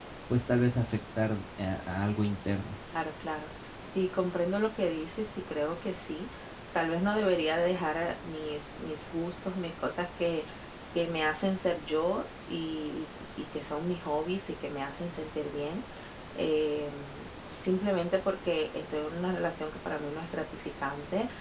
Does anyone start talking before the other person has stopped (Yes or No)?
No